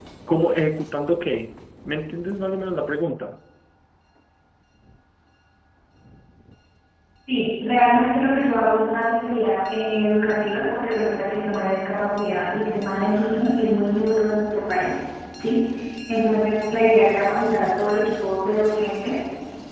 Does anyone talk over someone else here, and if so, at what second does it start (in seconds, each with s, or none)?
none